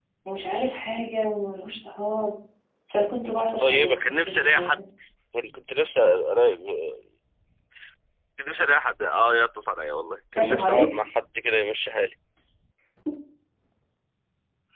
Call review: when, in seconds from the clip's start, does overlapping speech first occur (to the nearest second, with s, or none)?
3 s